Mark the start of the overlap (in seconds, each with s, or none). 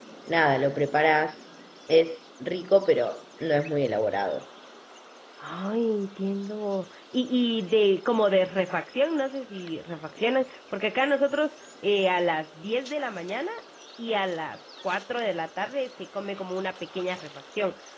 none